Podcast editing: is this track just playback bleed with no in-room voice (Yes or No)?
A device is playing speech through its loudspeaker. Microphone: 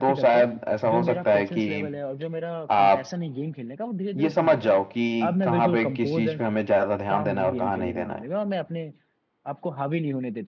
No